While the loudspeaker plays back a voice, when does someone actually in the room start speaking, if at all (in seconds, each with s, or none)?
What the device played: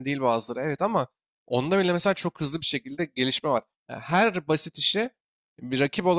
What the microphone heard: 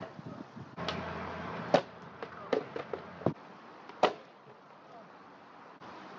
none